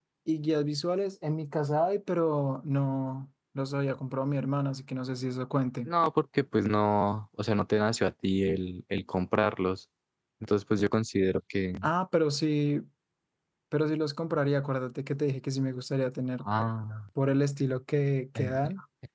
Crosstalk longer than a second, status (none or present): none